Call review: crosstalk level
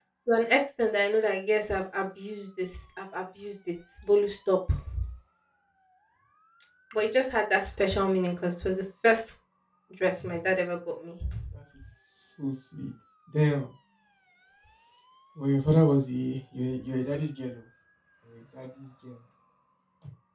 none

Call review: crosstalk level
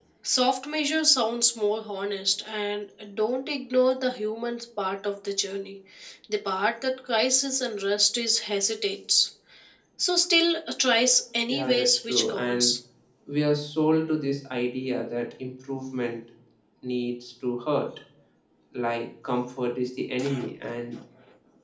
present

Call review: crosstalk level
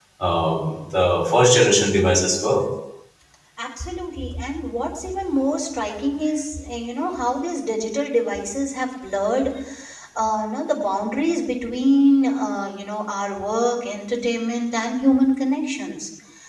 none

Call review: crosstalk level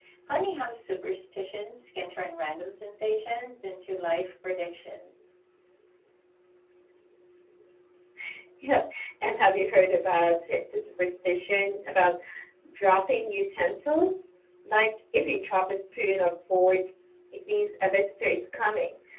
none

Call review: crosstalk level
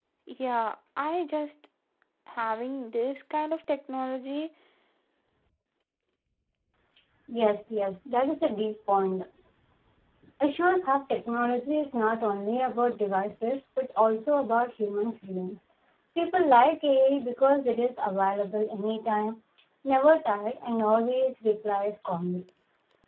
none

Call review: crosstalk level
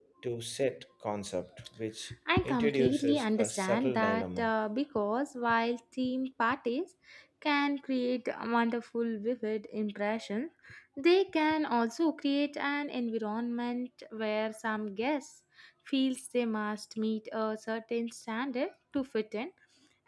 present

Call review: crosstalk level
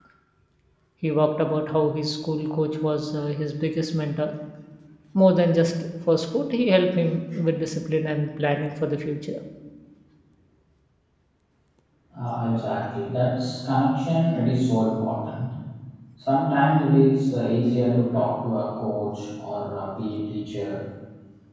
none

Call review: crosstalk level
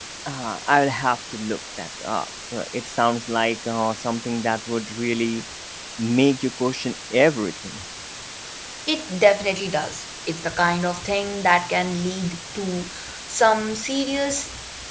none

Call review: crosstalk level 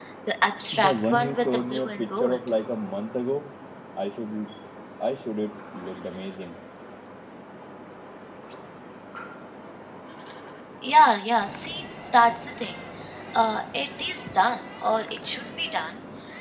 present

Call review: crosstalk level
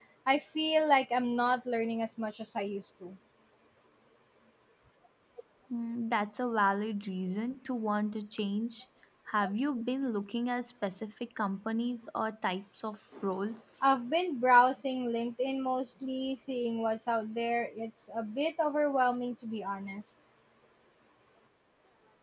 none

